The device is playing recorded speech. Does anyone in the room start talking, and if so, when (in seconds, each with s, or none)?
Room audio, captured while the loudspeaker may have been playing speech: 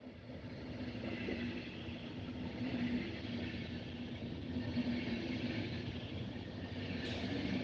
none